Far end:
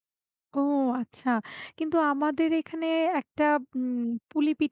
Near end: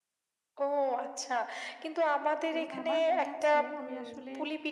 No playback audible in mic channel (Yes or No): No